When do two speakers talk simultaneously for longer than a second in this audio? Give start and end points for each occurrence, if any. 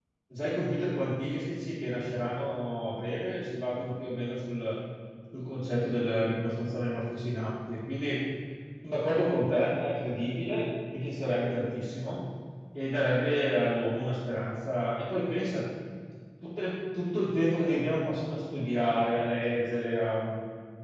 none

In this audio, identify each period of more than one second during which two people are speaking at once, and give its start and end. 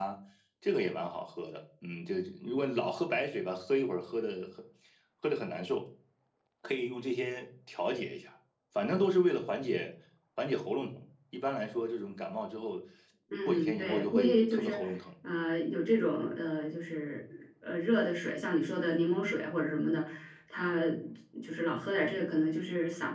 13.5-14.8

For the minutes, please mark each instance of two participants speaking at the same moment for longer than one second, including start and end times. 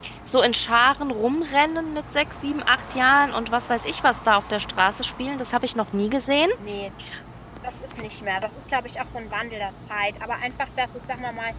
none

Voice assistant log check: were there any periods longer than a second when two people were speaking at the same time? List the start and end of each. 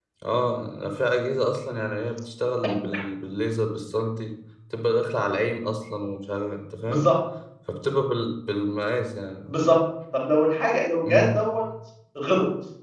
none

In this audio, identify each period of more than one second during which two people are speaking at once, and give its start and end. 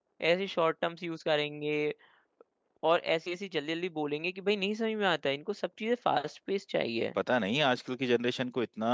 none

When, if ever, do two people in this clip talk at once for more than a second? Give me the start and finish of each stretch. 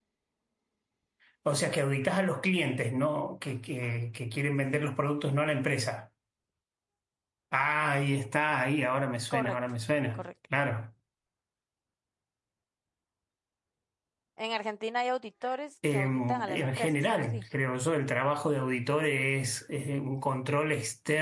15.9-17.4

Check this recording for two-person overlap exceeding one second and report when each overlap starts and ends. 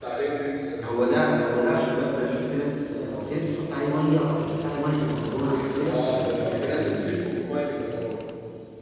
5.7-7.0

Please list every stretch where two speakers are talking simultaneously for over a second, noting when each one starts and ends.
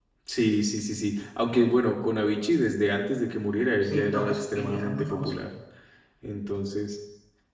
3.8-5.4

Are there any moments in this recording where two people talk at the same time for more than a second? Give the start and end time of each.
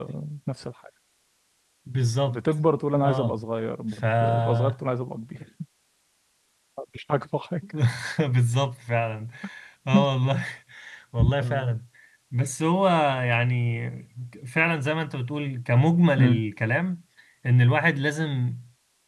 none

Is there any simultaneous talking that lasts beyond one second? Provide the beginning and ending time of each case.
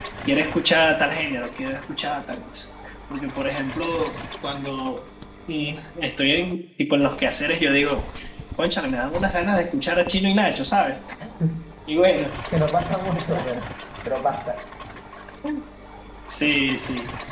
none

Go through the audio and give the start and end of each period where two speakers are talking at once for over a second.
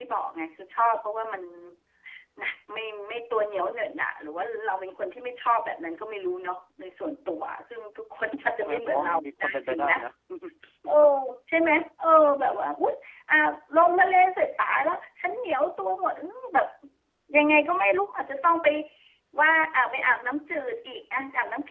8.6-9.9

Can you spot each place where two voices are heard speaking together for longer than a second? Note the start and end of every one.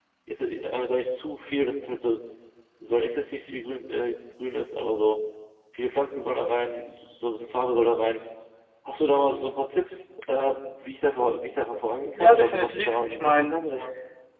12.1-13.6

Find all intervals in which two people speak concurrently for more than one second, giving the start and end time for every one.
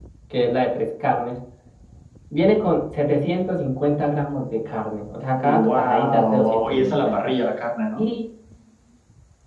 5.3-7.3

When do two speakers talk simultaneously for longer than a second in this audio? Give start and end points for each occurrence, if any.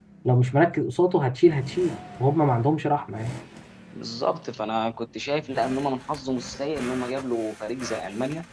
none

